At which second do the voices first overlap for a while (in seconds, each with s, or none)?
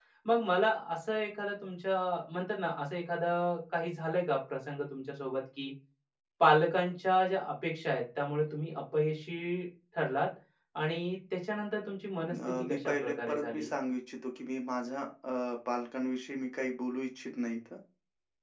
12.3 s